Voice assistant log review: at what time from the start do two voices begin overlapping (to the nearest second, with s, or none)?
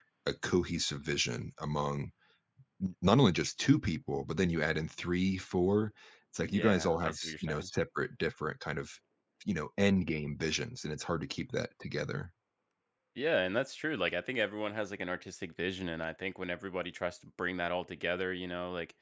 6 s